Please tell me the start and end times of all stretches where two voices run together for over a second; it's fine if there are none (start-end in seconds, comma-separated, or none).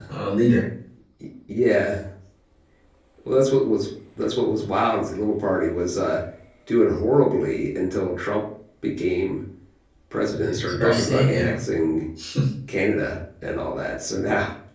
10.3-11.6